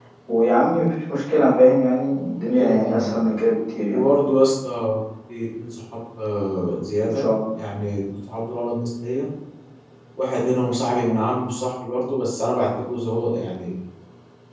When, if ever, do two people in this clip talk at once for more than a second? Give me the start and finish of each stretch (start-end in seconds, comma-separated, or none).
none